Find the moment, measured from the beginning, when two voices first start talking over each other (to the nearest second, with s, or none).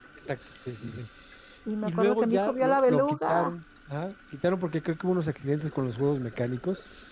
2 s